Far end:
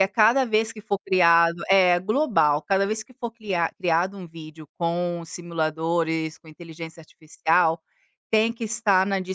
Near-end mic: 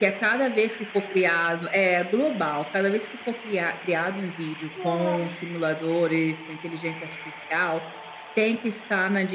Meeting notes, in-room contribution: present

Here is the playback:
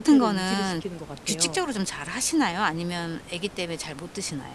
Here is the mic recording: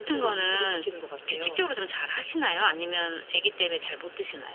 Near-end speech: none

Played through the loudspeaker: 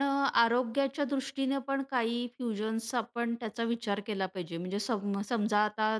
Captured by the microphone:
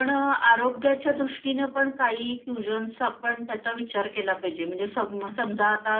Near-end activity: none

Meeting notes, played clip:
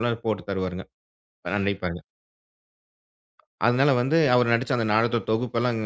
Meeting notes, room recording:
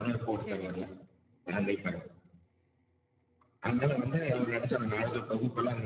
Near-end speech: present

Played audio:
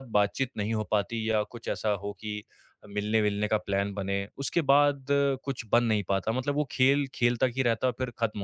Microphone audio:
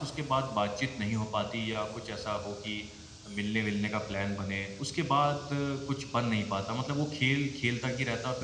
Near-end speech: none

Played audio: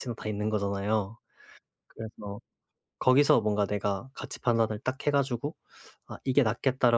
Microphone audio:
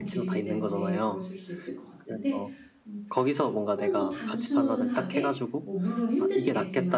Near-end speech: present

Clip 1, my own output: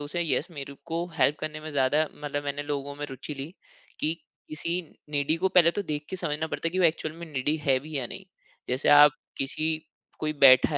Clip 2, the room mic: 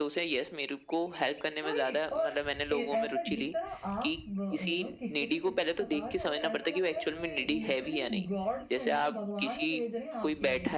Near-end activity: present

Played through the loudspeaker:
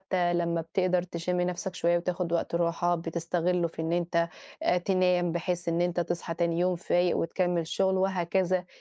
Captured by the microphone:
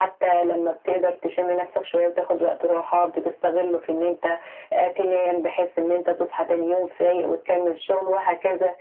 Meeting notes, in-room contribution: none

